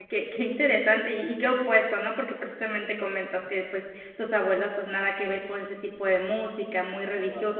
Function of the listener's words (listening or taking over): listening